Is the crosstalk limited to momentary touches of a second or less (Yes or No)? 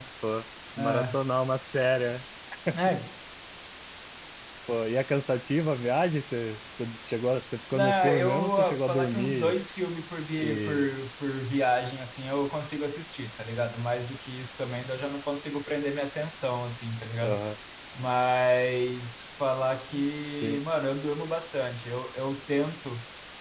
No